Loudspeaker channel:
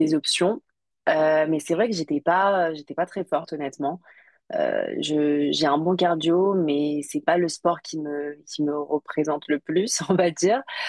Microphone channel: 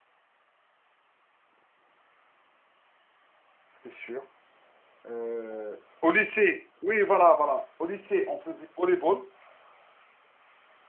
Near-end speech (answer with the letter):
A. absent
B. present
B